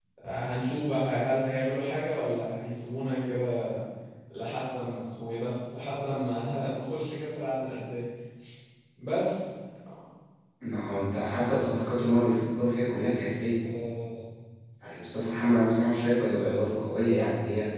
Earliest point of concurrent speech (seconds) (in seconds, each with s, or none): none